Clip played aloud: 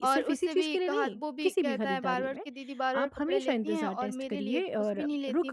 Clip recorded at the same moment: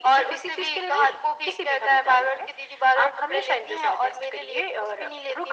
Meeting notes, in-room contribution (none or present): none